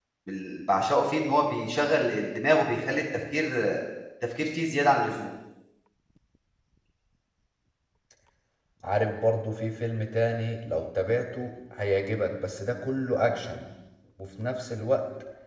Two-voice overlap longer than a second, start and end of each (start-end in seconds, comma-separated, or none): none